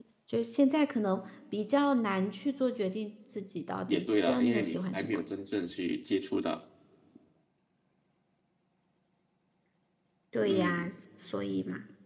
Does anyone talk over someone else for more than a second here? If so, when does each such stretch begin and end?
3.9-5.2

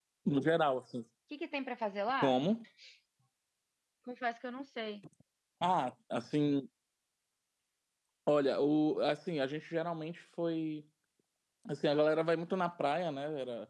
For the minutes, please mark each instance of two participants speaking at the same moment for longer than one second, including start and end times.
none

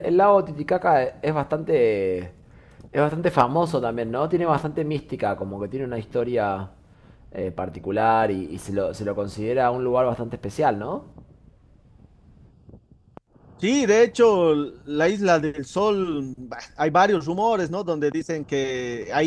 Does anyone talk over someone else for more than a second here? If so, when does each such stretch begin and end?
none

